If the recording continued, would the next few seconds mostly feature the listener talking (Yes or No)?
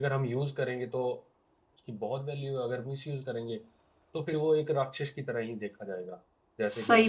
Yes